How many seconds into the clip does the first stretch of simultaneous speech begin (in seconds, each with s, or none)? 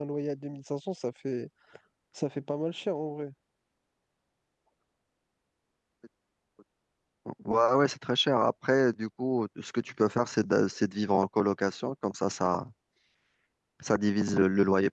none